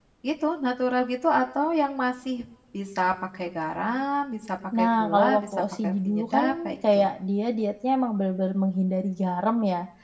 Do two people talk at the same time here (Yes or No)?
Yes